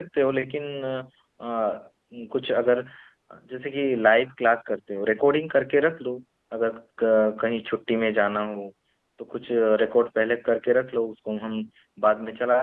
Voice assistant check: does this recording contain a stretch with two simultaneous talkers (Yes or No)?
No